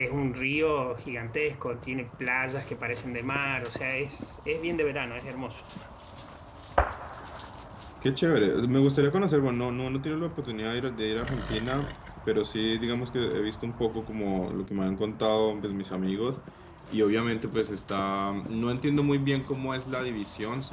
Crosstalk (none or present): none